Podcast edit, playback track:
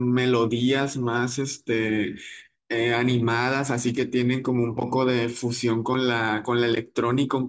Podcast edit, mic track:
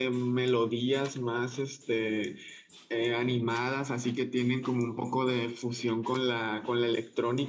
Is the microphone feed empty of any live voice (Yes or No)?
Yes